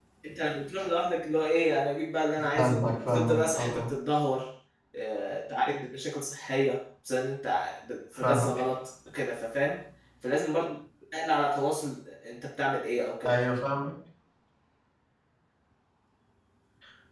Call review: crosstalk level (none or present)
present